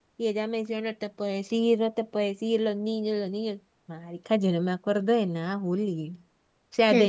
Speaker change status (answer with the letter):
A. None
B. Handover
B